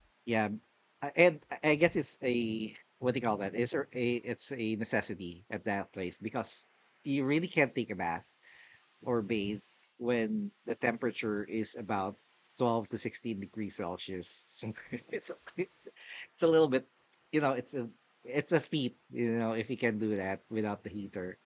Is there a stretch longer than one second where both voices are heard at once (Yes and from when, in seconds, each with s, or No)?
No